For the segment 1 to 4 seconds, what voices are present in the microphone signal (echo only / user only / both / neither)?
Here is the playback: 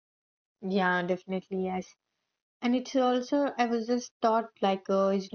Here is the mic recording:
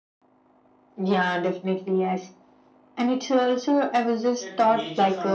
echo only